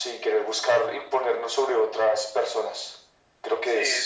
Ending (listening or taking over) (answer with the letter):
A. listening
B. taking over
B